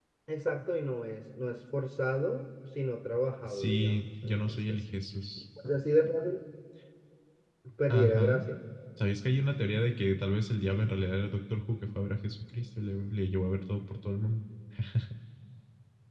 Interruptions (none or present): present